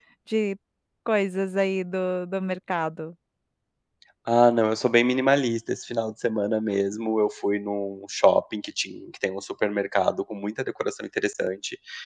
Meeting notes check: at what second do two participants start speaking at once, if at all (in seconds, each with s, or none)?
none